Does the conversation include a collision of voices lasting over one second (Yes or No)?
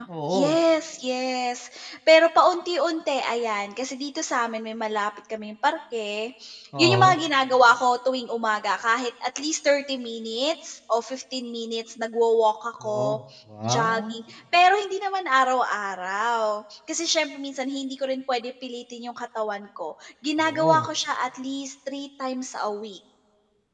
No